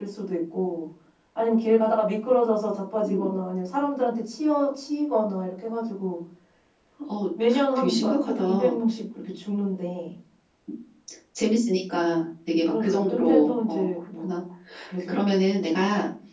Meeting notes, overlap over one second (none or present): present